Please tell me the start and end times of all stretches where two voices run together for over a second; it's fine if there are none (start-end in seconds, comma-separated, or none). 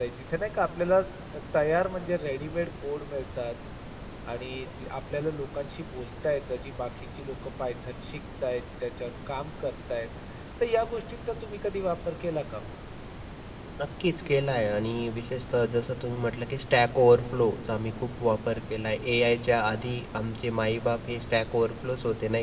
none